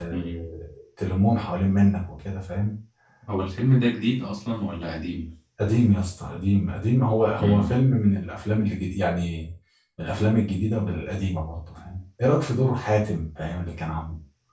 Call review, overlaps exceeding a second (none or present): none